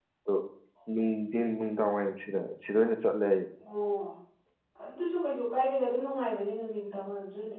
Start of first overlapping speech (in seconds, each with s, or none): none